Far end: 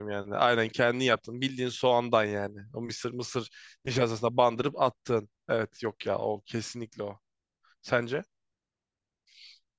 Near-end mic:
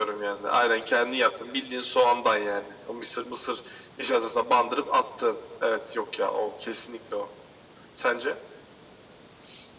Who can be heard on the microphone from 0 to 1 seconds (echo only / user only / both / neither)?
echo only